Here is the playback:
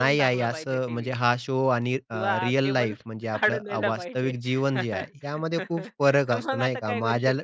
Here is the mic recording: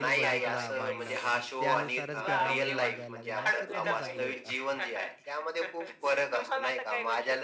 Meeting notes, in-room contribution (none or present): present